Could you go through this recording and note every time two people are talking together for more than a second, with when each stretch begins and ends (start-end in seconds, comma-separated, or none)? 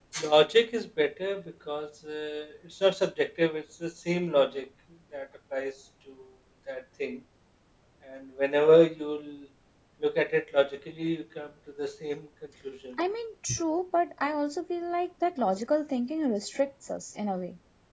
none